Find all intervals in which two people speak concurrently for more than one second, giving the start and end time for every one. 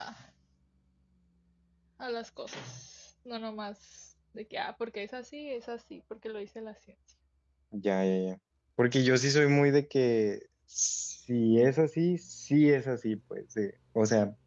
none

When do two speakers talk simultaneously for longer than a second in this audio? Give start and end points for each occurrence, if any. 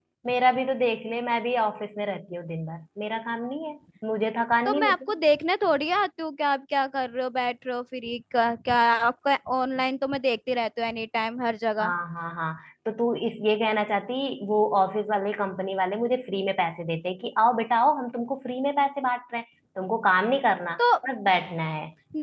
none

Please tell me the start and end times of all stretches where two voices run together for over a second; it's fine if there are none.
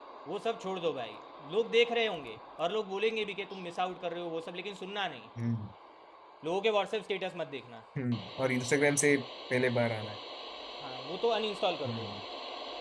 none

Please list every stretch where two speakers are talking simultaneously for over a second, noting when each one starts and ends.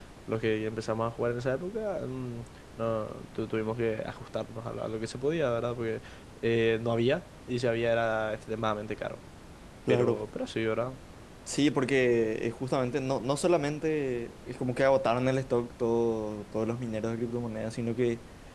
none

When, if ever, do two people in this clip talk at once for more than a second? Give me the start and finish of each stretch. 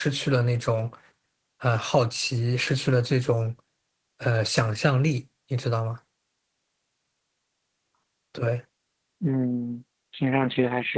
none

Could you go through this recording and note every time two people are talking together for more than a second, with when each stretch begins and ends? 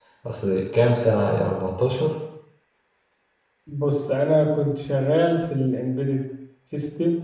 none

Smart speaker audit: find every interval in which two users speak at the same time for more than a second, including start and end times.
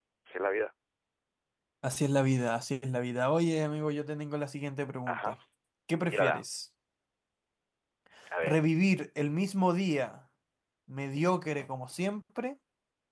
none

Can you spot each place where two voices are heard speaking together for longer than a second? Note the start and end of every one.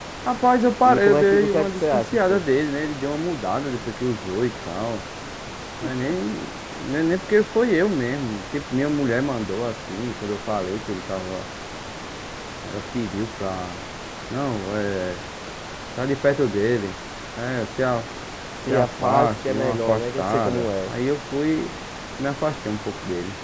0.9-2.4, 18.7-20.9

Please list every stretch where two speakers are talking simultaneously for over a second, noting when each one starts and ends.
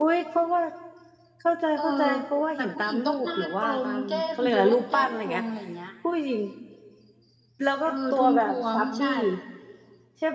2.6-5.4, 7.9-9.1

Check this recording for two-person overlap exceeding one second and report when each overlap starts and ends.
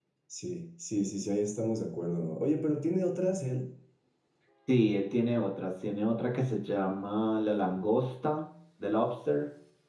none

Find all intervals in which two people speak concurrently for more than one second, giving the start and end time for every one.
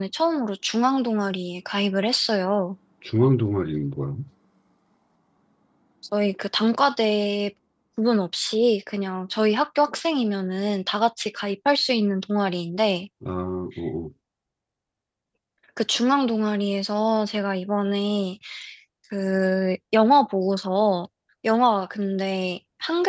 none

